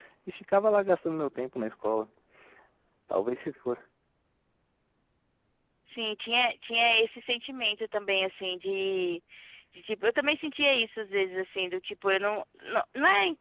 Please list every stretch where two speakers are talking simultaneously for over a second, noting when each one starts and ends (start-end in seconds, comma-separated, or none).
none